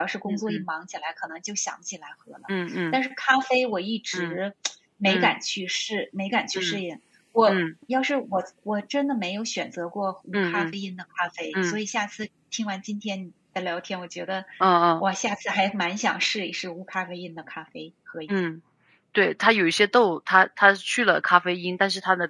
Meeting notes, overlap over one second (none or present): none